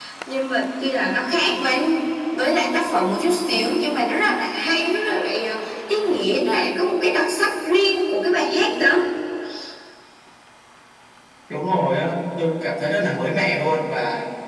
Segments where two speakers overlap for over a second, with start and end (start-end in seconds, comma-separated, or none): none